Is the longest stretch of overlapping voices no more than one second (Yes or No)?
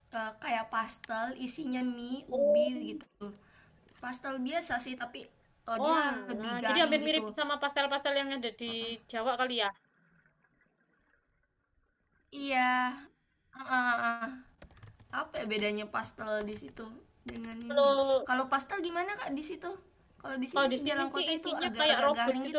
No